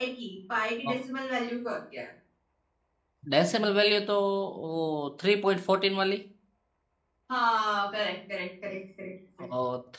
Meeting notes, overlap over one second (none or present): none